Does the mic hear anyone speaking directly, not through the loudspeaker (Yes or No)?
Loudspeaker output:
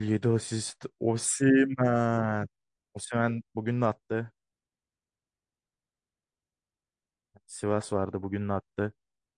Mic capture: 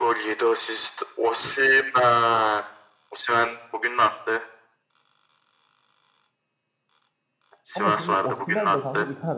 Yes